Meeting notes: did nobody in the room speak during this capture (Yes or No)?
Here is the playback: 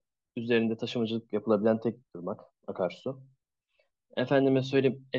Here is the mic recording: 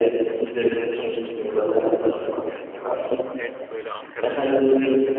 No